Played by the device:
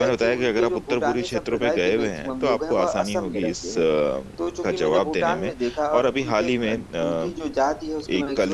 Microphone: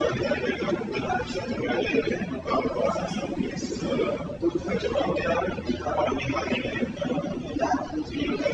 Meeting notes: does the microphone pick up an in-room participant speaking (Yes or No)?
No